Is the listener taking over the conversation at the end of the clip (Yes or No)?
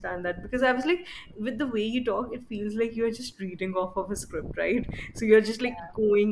No